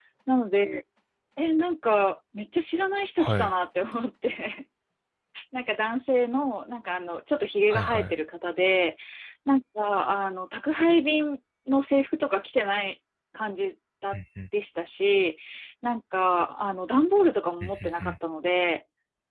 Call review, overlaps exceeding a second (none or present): none